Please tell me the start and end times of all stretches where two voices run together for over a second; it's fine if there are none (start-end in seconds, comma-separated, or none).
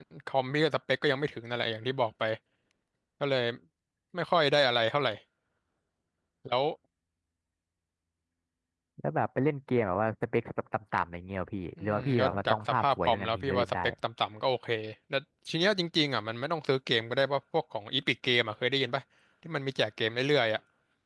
11.8-13.7